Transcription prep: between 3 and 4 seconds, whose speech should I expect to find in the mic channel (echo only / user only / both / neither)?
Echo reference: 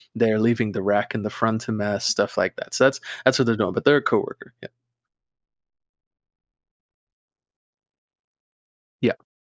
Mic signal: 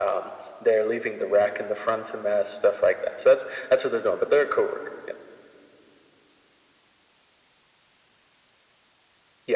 echo only